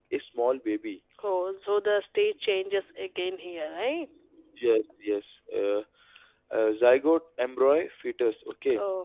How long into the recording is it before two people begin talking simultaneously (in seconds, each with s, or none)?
none